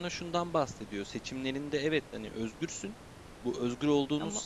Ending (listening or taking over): listening